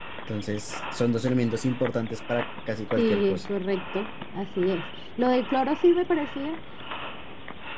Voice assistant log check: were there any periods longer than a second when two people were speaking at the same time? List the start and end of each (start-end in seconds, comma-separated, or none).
none